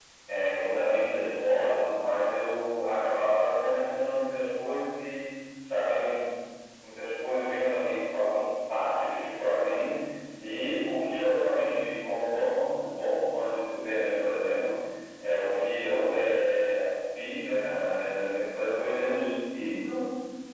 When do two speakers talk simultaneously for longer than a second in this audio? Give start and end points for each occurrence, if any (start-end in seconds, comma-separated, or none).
none